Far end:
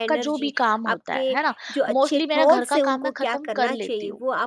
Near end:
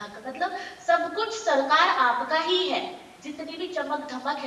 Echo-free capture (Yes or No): Yes